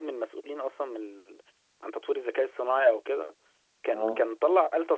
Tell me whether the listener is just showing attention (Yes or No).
Yes